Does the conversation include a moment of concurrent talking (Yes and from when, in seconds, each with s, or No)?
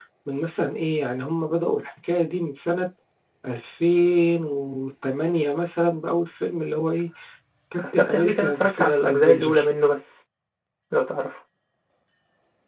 Yes, from 7.9 s